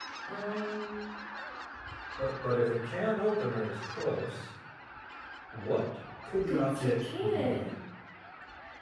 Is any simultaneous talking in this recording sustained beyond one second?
Yes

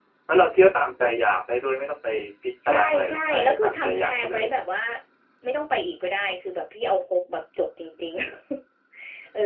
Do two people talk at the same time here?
Yes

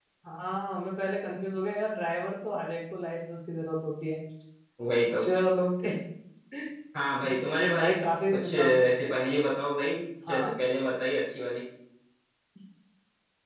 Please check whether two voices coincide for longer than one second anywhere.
No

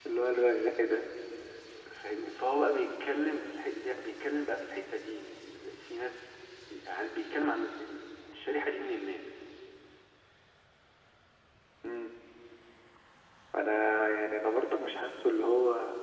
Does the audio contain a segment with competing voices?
No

